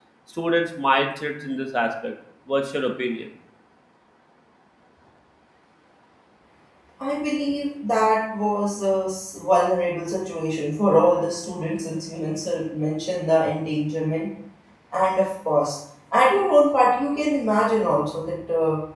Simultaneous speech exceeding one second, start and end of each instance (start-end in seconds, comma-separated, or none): none